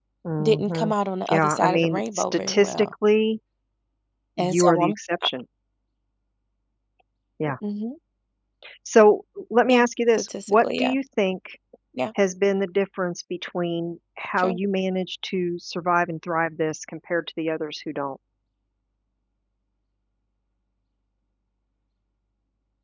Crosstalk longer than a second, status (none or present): present